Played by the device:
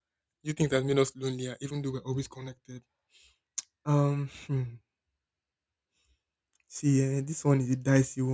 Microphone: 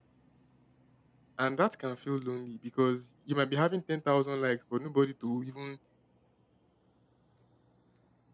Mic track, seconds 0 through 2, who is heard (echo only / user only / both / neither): user only